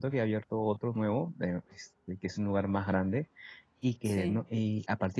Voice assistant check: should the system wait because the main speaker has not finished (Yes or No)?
Yes